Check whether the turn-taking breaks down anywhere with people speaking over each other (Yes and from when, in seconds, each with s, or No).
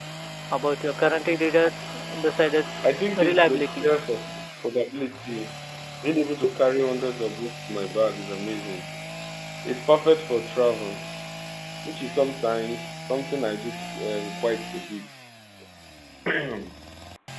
Yes, from 2.8 s